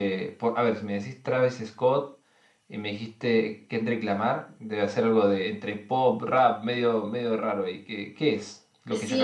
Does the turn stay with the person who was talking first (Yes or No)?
No